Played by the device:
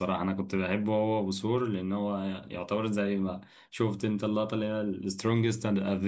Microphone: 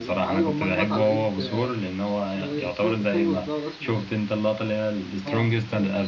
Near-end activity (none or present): present